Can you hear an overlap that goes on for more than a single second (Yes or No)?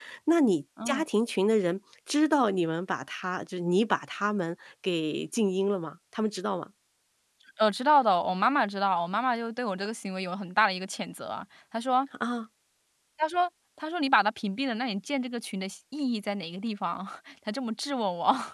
No